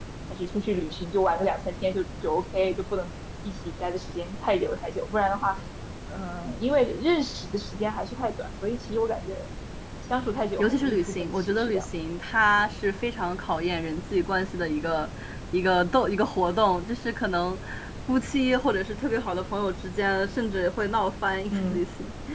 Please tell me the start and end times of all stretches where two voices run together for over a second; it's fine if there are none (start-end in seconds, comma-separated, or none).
10.6-11.8